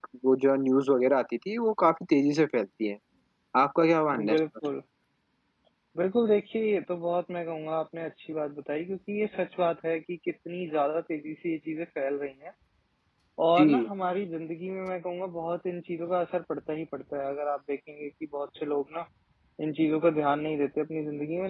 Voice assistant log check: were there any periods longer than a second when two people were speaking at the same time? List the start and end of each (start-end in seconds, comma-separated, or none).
none